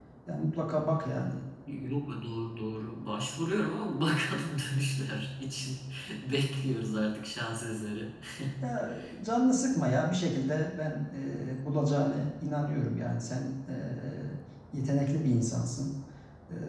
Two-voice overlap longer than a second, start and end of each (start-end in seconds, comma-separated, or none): none